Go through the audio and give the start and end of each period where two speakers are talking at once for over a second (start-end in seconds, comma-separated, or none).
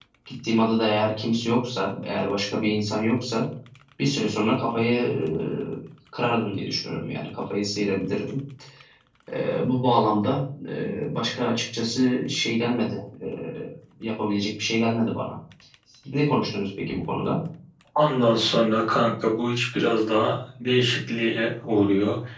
none